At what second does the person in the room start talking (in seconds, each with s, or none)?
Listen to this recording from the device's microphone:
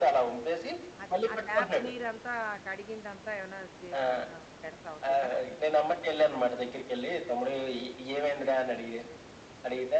1.0 s